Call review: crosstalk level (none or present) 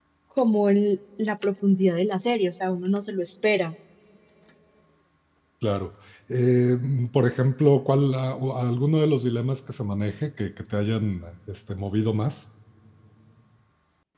none